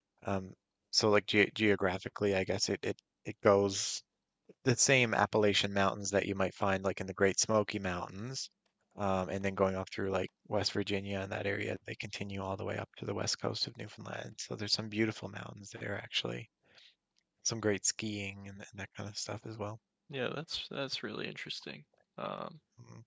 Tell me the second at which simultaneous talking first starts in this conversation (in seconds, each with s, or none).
none